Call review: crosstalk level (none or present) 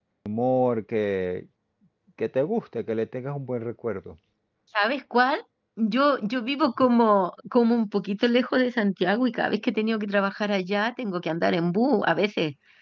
none